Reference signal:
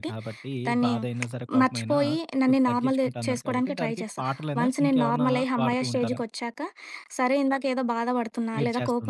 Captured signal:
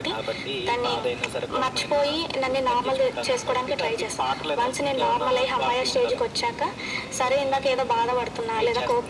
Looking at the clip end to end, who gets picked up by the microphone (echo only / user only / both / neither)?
echo only